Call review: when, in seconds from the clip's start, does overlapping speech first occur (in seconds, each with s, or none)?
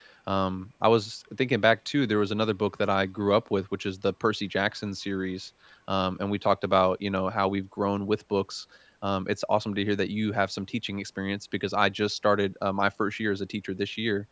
none